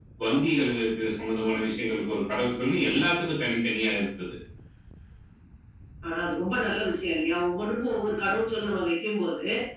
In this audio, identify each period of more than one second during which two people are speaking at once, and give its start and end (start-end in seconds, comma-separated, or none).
none